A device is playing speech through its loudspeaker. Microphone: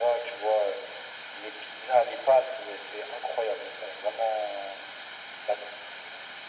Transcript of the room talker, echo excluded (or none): none